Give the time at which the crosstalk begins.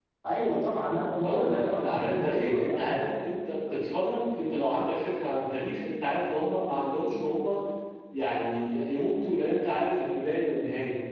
1 s

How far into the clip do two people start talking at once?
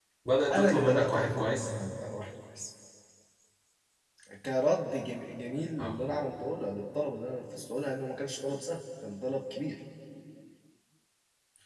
1 s

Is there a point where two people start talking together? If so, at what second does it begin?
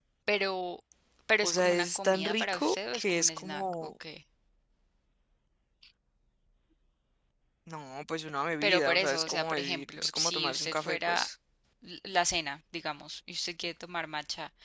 1 s

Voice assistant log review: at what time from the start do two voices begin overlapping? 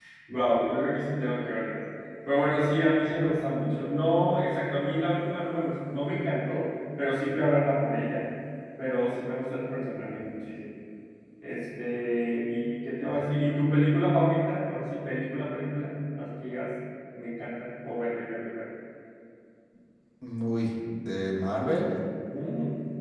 none

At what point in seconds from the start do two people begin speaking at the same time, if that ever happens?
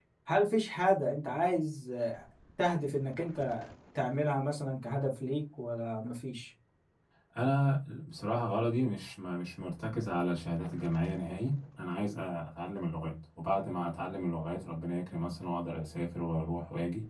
none

